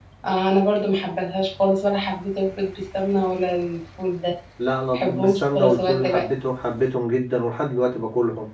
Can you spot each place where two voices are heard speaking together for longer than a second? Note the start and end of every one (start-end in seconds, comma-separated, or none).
4.9-6.2